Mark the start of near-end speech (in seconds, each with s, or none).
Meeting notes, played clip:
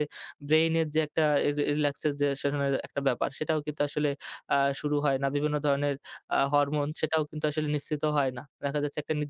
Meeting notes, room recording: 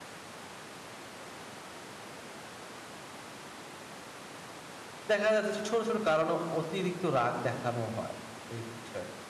5.1 s